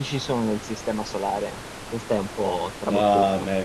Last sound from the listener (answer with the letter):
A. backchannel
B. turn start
B